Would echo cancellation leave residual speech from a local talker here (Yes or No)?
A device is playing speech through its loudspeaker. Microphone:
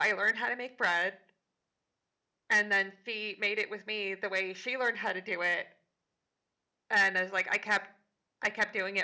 Yes